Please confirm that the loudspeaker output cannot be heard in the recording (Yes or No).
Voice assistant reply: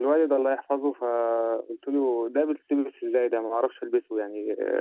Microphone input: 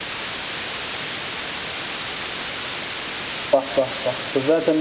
Yes